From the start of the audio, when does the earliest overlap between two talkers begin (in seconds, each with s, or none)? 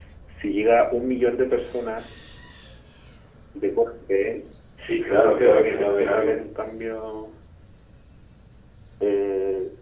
5.1 s